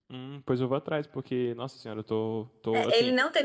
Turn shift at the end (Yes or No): Yes